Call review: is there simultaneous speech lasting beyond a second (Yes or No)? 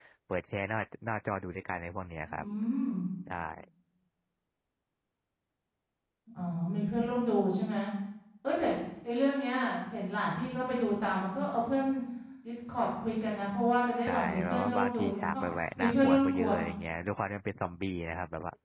Yes